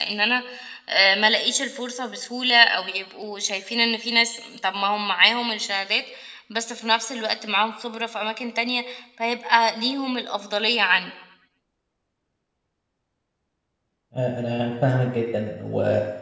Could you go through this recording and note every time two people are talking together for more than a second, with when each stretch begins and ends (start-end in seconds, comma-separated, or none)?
none